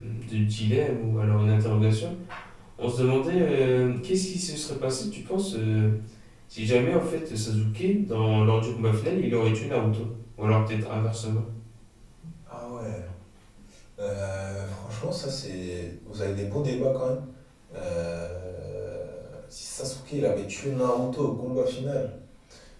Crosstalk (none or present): none